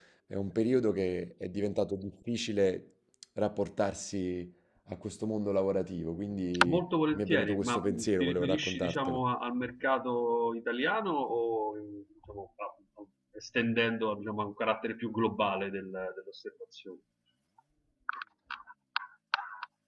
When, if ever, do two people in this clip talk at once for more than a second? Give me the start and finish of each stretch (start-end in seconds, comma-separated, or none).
6.7-9.2